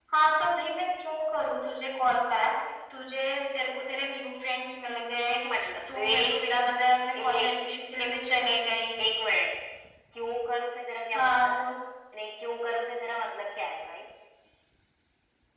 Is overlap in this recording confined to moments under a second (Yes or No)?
Yes